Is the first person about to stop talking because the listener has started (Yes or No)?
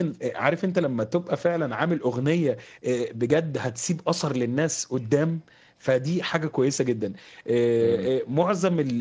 No